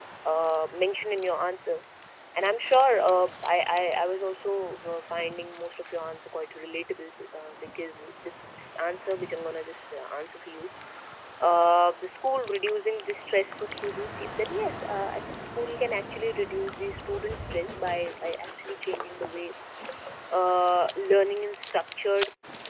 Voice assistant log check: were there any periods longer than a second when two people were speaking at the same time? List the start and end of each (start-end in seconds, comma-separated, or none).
none